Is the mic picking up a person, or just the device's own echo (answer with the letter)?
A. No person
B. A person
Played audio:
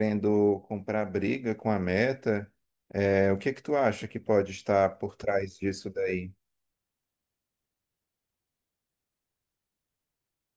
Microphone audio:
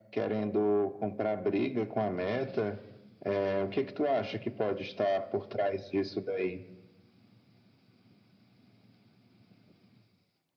A